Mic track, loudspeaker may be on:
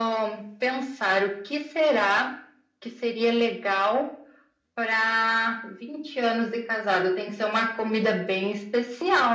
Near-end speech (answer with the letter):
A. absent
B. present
A